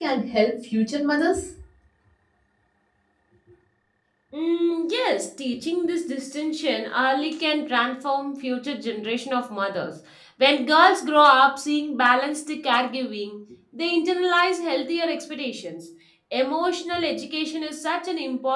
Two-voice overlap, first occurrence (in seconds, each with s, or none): none